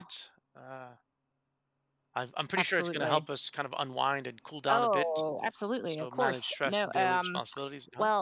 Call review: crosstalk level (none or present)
present